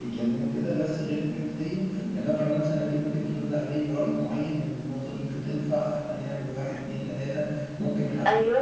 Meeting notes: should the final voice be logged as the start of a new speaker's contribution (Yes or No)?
No